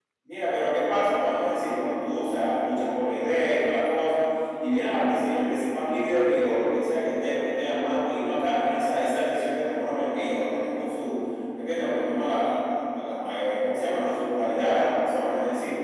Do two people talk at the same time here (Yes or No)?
No